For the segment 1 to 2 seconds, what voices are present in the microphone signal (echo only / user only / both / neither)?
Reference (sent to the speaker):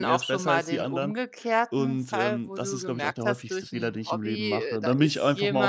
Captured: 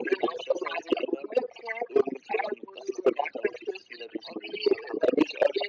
echo only